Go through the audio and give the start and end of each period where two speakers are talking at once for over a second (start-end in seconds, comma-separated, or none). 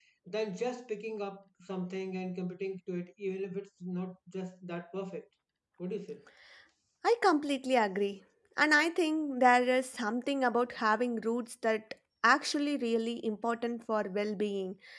none